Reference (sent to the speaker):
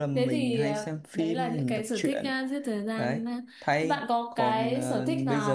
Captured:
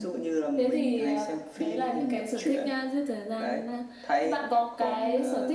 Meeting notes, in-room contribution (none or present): none